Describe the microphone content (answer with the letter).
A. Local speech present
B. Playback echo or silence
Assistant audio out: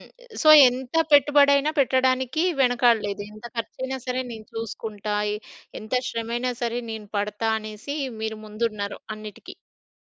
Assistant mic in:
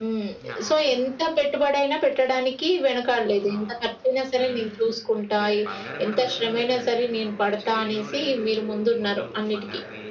A